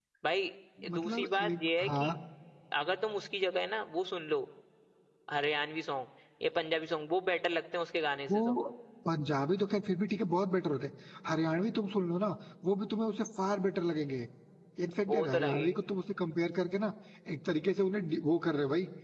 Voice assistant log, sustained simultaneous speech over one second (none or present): present